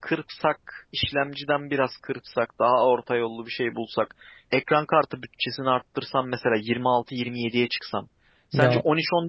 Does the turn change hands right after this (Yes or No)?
No